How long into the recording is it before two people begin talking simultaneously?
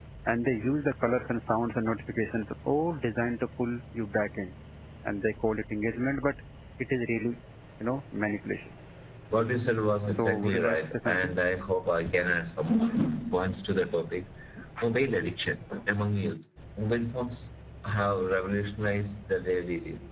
10.1 s

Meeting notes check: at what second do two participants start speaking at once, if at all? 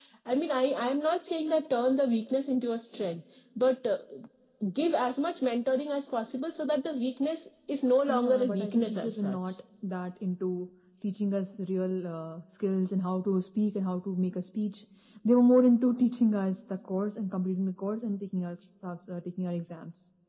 8.1 s

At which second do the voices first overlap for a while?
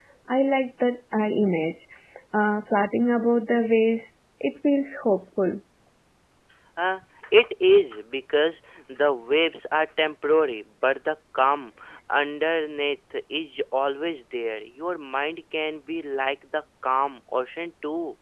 none

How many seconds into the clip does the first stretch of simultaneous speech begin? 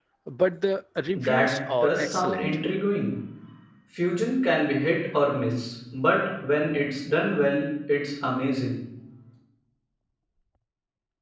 1.1 s

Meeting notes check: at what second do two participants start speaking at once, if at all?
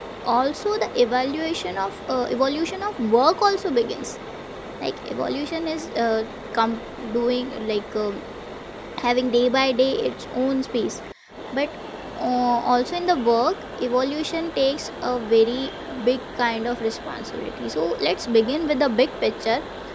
none

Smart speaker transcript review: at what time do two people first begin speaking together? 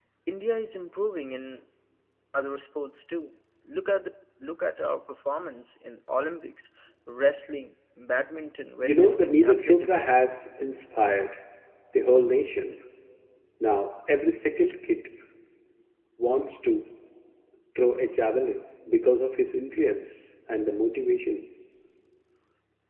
8.8 s

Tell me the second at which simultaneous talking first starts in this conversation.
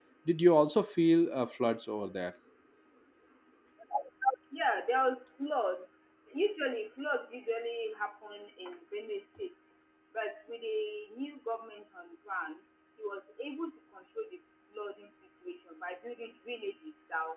none

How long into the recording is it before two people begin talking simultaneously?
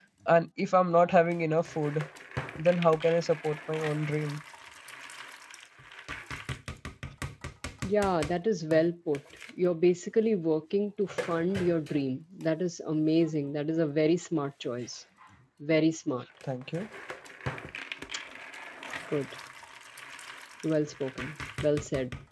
none

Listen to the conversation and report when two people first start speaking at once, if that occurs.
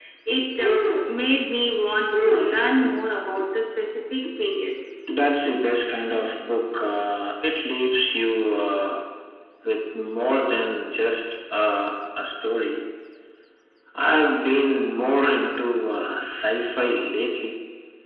none

